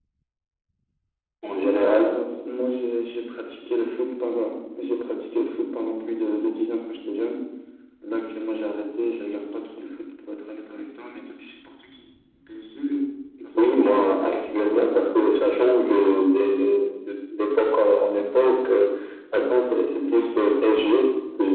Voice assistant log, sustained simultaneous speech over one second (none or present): none